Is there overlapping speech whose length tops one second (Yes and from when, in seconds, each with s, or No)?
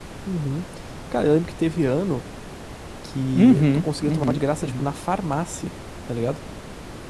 Yes, from 3.3 s